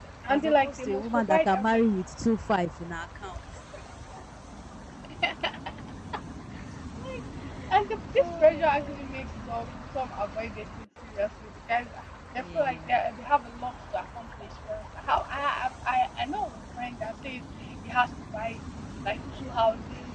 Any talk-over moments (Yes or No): Yes